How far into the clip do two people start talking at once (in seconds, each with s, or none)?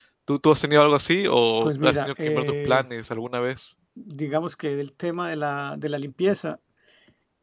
1.6 s